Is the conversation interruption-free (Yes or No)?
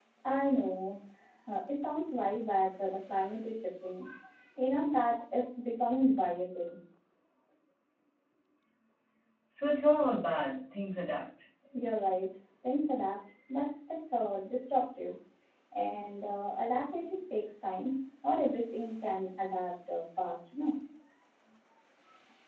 Yes